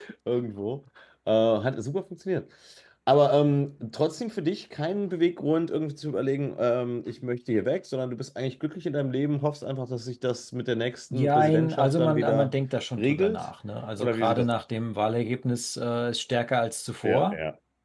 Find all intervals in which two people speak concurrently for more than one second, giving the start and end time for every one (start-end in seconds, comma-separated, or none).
11.1-12.5